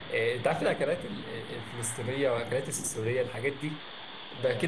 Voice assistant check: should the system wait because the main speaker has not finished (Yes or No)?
Yes